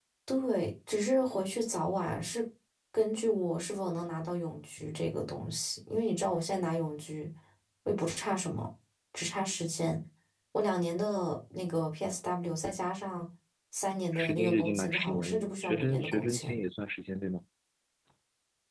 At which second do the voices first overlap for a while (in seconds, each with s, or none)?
14.1 s